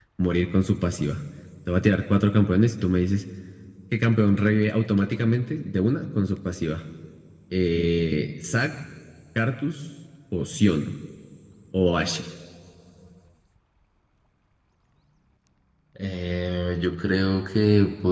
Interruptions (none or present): none